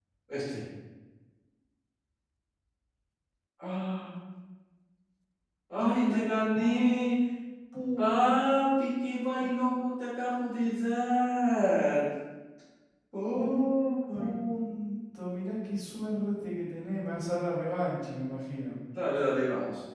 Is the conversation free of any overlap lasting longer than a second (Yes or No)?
No